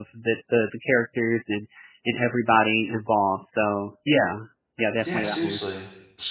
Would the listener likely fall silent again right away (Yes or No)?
No